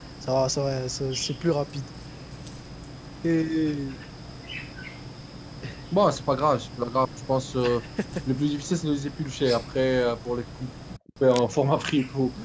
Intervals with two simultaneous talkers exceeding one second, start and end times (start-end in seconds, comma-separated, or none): none